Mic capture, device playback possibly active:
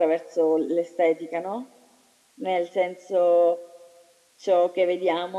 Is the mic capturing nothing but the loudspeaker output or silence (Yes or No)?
Yes